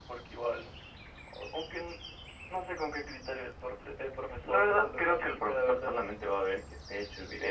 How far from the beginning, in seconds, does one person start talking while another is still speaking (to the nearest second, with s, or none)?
4 s